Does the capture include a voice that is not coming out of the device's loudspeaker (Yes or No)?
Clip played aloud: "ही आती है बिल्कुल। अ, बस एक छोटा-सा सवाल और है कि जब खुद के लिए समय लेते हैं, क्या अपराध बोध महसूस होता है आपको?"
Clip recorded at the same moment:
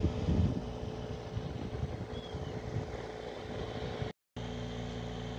No